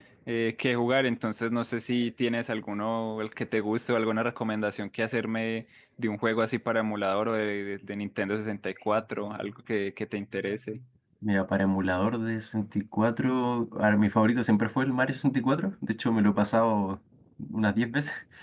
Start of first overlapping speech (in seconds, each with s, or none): none